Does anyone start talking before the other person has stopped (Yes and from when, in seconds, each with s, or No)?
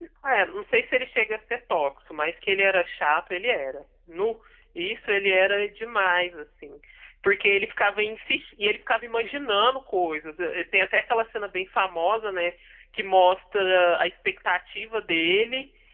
No